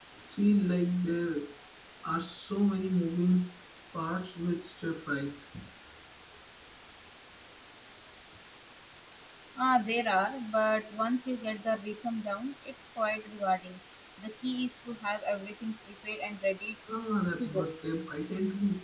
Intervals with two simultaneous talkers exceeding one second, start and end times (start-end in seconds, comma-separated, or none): none